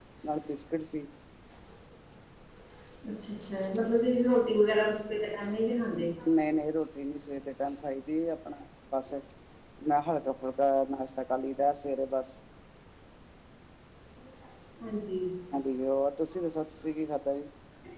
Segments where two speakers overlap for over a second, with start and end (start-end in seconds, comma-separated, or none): none